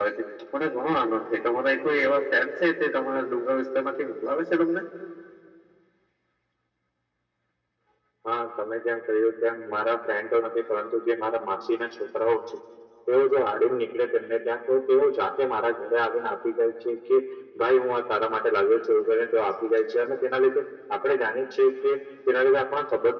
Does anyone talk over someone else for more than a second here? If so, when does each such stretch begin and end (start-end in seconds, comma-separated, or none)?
none